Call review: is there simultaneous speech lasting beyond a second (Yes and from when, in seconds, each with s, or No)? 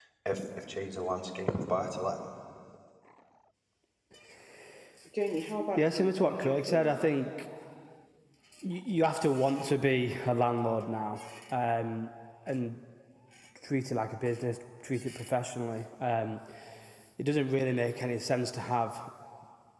Yes, from 5.8 s